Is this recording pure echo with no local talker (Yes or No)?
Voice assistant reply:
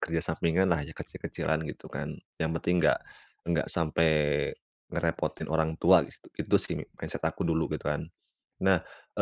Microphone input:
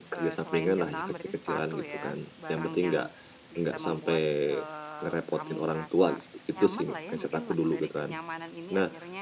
No